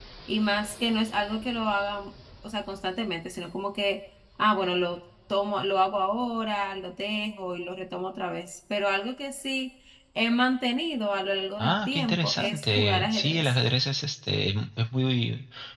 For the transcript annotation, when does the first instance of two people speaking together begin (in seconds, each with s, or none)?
11.6 s